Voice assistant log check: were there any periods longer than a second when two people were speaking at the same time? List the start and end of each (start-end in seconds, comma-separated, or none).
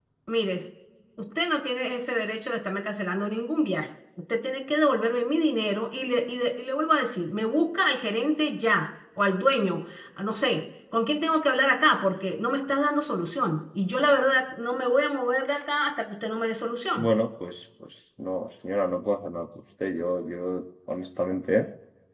none